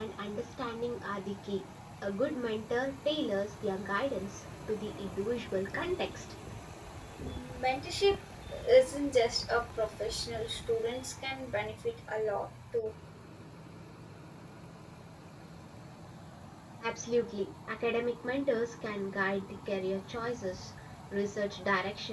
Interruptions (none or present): none